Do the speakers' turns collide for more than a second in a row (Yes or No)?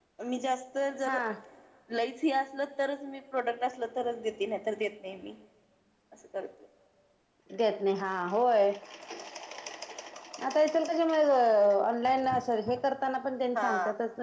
No